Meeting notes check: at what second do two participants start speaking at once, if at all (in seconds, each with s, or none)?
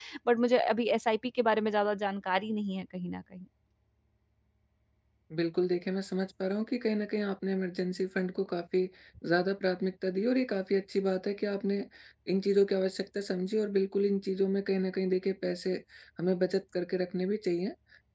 none